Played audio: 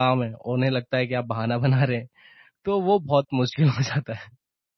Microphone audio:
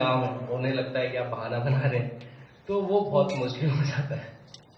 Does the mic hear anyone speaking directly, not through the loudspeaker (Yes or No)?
Yes